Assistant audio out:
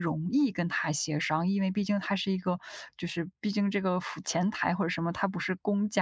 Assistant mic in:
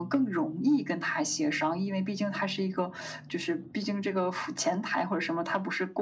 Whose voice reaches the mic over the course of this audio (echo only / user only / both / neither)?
echo only